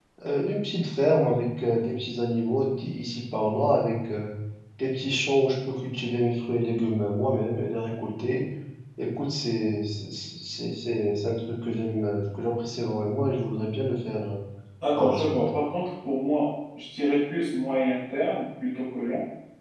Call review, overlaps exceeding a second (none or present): none